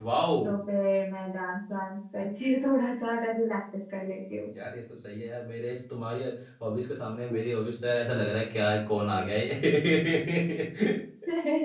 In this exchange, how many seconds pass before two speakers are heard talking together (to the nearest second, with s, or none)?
none